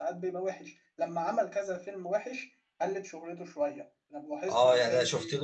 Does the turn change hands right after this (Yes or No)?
Yes